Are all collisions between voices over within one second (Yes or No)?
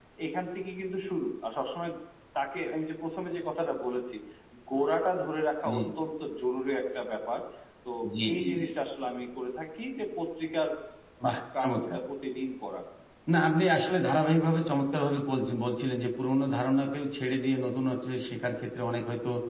Yes